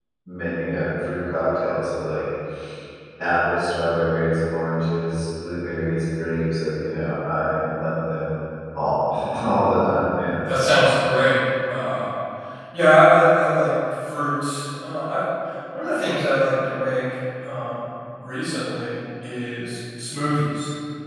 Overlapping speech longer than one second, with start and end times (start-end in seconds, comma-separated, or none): none